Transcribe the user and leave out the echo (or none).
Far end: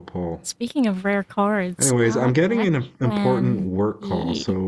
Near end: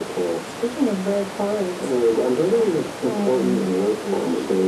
none